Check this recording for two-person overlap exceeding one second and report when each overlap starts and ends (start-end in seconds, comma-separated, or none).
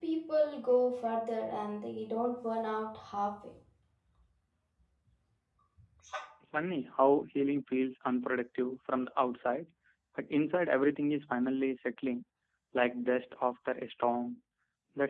none